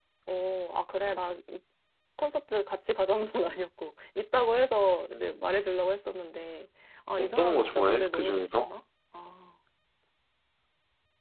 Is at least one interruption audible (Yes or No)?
Yes